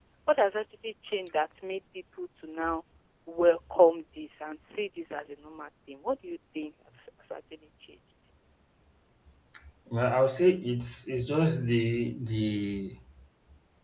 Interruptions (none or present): none